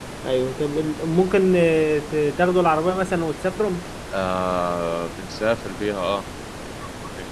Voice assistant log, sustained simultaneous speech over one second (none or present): none